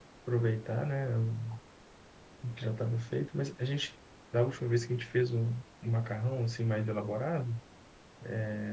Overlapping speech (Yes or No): No